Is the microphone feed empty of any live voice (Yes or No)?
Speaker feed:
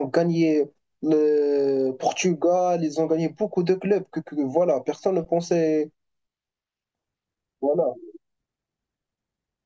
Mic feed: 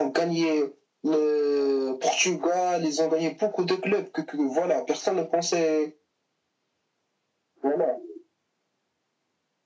Yes